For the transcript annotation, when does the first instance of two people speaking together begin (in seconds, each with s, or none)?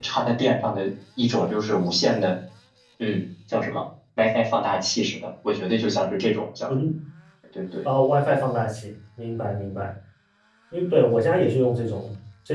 none